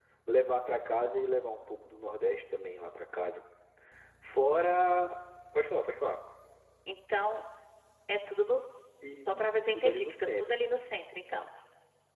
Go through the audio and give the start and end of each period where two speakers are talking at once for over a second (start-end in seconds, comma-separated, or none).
9.1-10.5